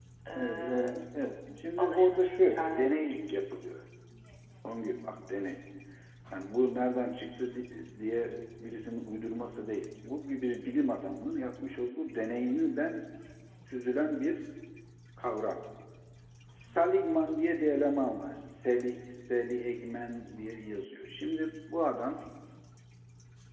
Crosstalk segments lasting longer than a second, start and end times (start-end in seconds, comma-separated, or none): 1.8-3.4